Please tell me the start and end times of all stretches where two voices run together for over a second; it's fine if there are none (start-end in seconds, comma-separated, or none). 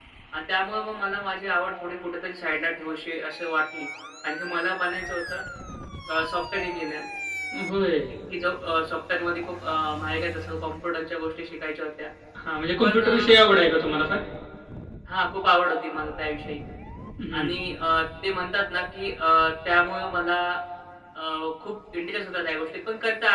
none